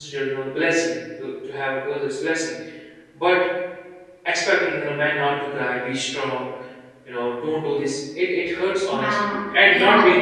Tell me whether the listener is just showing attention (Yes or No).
No